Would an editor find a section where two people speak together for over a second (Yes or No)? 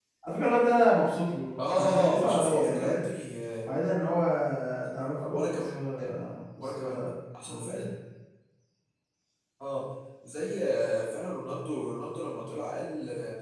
Yes